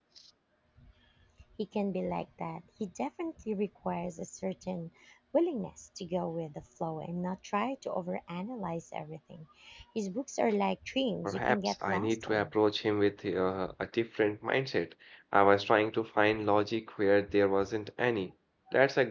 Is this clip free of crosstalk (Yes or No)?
No